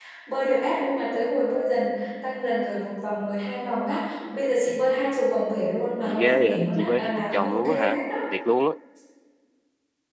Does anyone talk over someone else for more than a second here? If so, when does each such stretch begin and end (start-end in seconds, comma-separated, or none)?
6.0-8.0